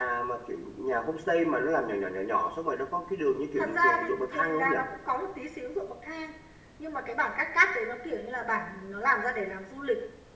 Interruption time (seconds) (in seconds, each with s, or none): 3.6 s